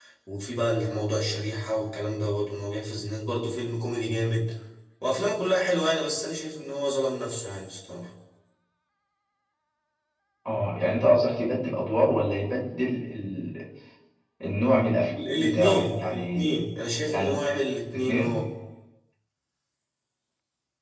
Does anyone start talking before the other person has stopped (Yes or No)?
Yes